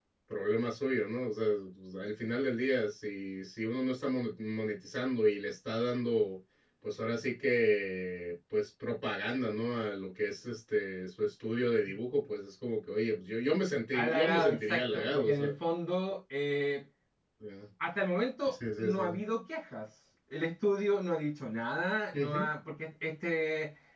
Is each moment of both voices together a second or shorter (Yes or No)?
No